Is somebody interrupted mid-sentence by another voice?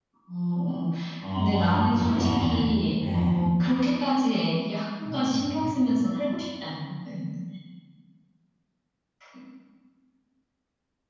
Yes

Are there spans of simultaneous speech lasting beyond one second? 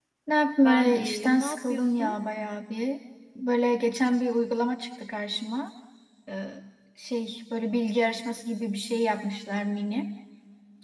Yes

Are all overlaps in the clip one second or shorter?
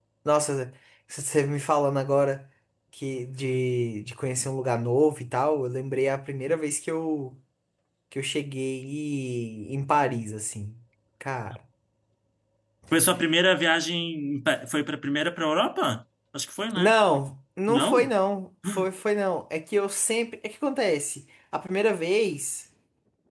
Yes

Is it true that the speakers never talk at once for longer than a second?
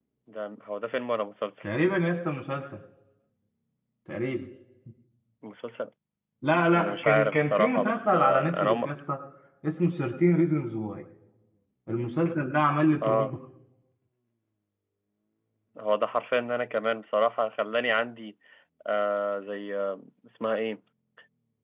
No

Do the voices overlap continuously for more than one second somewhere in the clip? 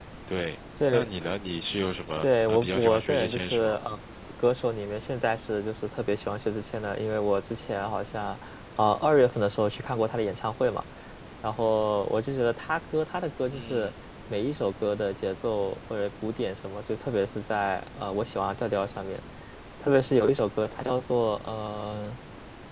Yes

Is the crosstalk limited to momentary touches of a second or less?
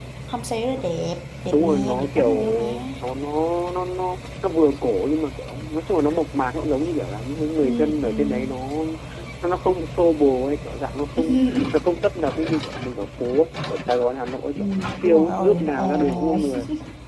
No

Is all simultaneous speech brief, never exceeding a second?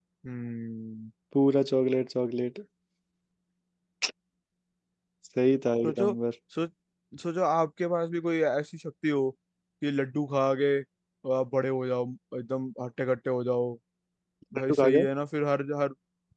Yes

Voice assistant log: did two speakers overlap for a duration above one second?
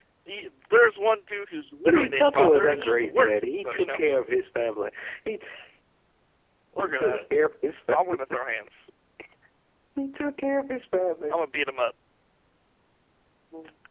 Yes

